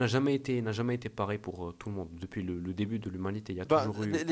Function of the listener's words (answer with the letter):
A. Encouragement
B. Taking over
B